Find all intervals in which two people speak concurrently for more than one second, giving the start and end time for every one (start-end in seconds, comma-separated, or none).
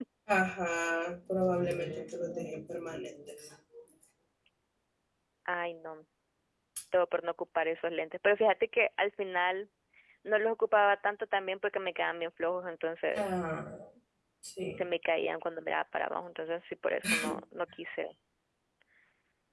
none